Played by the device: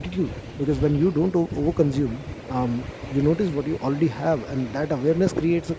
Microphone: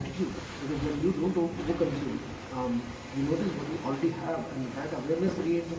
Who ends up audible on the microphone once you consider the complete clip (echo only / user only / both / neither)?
echo only